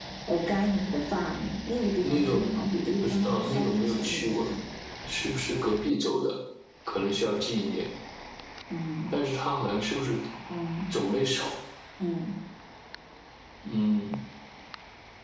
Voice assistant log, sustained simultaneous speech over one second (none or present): present